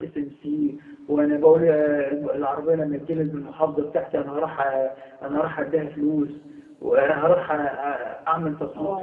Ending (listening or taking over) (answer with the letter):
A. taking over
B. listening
B